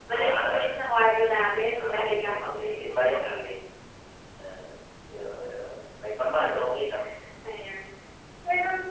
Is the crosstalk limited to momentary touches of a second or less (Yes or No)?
No